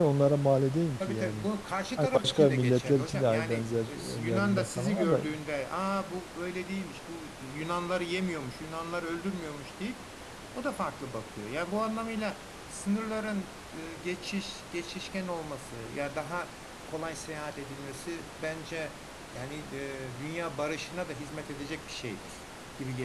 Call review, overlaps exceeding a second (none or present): present